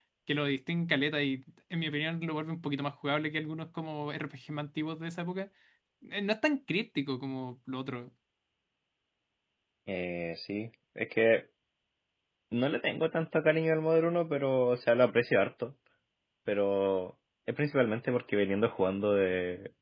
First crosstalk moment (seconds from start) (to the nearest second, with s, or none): none